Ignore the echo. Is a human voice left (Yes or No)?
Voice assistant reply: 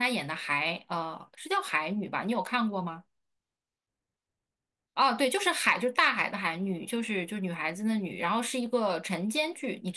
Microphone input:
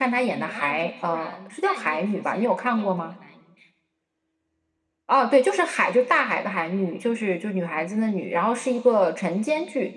Yes